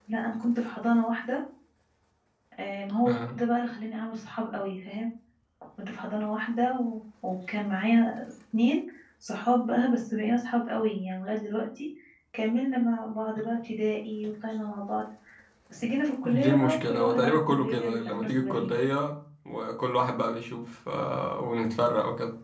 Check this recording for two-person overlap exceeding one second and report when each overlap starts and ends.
16.2-18.7

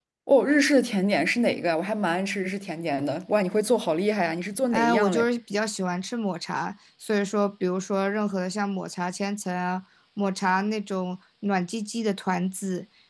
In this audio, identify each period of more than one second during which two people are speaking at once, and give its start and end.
none

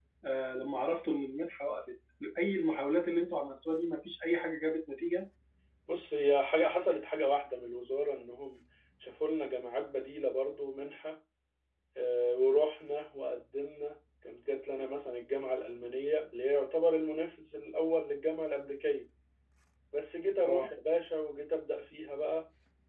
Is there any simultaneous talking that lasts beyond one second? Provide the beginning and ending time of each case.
none

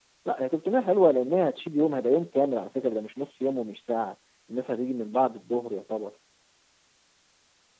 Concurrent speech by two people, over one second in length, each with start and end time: none

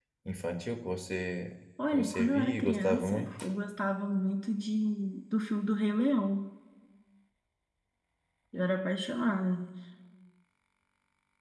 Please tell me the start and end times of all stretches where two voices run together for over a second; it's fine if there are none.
1.9-3.3

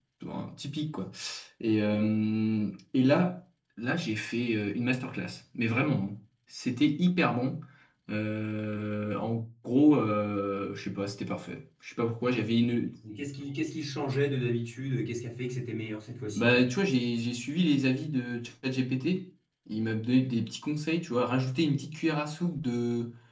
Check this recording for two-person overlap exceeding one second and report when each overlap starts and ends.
none

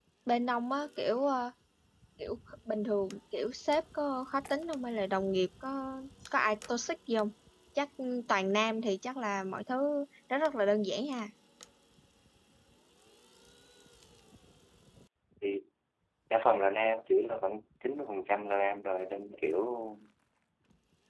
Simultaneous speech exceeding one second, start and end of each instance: none

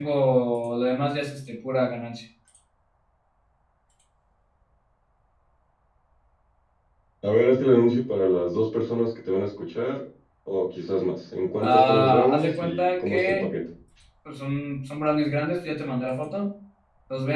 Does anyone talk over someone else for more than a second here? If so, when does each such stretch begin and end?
11.6-13.5

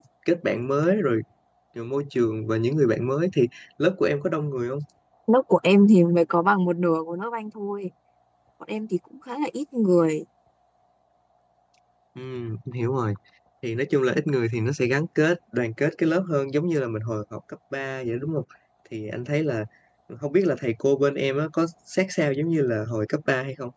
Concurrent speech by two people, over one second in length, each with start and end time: none

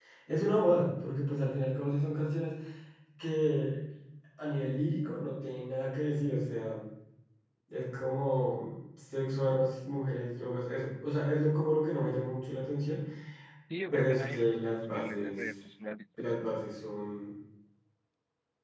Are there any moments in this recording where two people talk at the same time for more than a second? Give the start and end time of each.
13.9-15.4

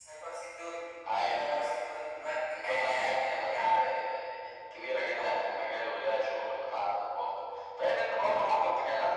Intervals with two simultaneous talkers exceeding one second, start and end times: 2.5-3.8

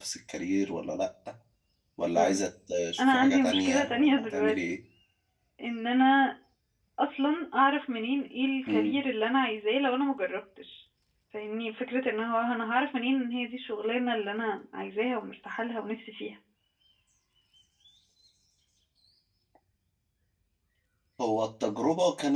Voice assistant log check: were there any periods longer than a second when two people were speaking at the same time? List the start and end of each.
3.0-4.8

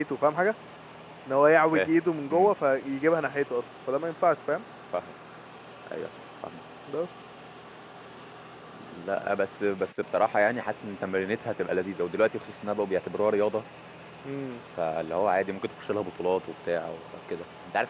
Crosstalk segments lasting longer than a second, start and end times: none

